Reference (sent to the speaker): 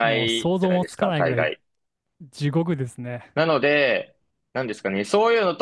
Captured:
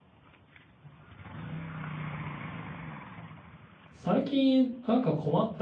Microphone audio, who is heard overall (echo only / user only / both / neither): user only